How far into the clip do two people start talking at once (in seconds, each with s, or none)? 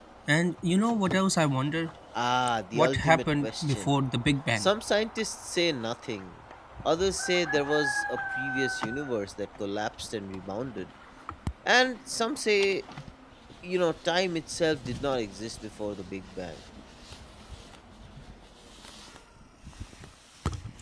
2.7 s